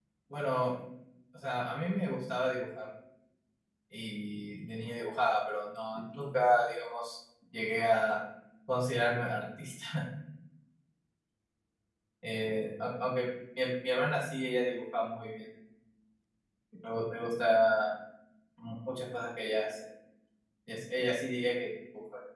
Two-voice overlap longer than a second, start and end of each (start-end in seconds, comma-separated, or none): none